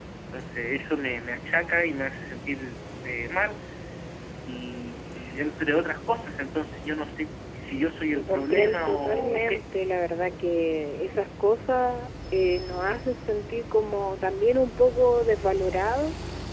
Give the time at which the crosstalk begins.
8.1 s

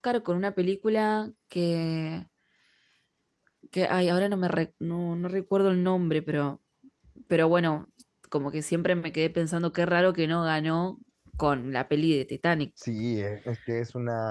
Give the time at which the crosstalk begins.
none

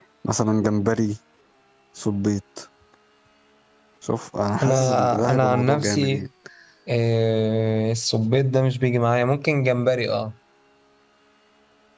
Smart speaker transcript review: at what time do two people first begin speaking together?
4.6 s

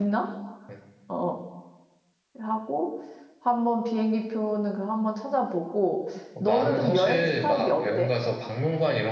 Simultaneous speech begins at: 6.3 s

